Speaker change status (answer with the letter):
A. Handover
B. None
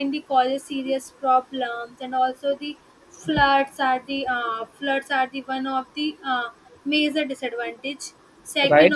A